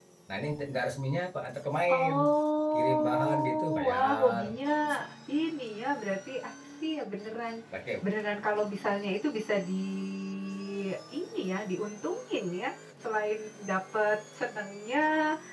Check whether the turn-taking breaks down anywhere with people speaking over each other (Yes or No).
Yes